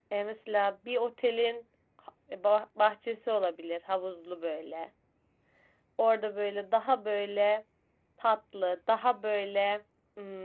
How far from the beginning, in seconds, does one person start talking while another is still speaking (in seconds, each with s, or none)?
none